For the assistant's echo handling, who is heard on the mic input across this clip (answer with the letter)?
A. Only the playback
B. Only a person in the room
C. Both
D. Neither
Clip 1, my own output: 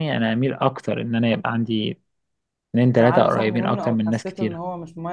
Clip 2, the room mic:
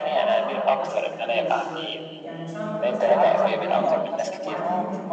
C